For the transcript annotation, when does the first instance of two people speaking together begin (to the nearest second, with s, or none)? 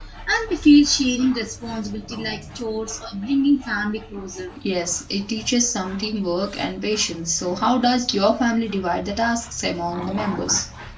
none